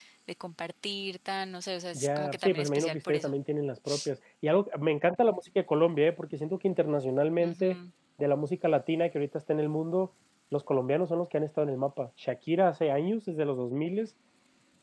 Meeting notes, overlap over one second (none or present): present